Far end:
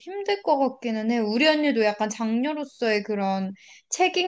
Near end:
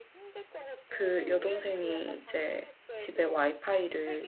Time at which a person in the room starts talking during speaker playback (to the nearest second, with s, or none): 1 s